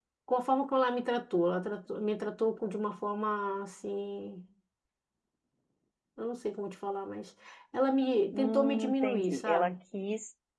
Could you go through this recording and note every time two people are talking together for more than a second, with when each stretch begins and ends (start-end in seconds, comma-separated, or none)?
8.3-9.7